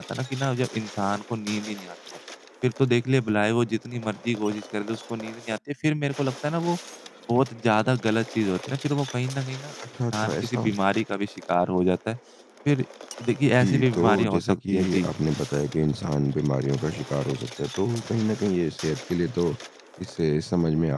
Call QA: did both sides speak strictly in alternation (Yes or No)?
No